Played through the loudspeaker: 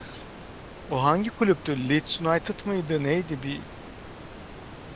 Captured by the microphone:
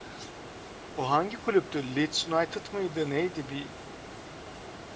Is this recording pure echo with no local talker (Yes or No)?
Yes